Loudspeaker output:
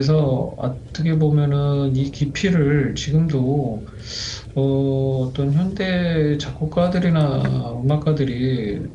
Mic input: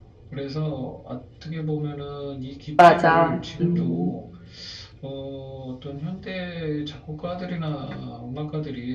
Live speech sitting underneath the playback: No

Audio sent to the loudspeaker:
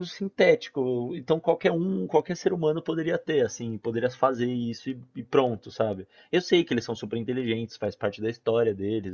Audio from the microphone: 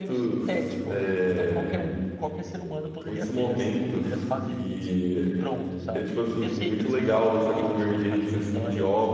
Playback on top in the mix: No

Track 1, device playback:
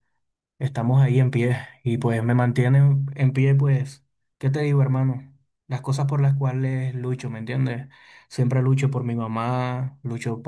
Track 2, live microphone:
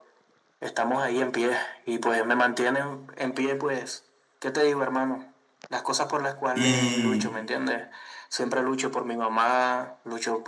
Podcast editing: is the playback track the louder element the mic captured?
No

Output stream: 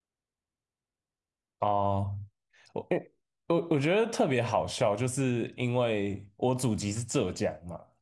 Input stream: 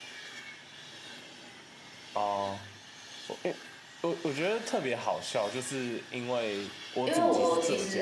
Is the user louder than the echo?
Yes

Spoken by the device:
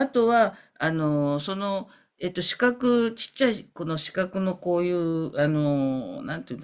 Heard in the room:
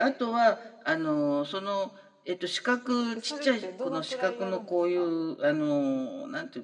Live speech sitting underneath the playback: Yes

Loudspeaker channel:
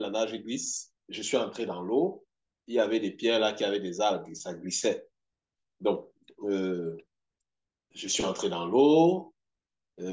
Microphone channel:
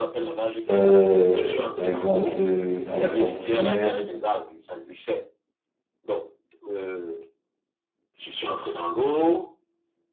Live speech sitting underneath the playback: No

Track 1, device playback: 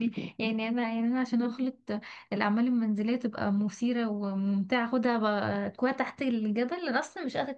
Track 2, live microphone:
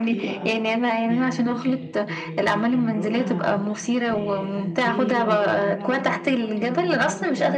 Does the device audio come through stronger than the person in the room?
Yes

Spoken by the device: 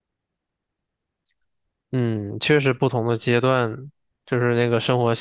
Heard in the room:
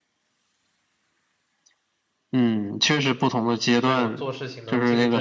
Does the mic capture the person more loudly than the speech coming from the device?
No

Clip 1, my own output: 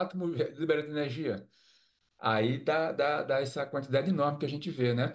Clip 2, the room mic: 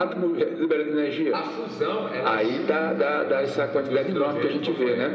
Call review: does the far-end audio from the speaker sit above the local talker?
Yes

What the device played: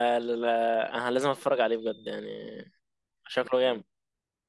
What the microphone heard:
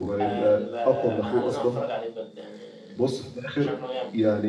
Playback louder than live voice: No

